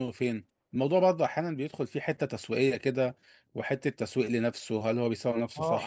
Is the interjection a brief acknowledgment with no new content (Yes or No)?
No